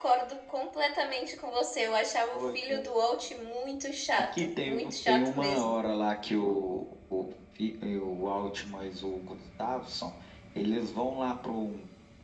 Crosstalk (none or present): present